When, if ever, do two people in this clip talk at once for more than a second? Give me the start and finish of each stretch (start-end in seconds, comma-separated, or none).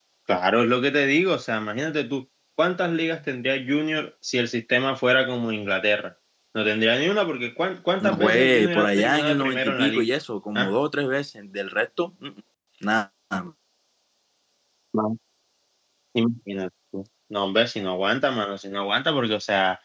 8.0-10.1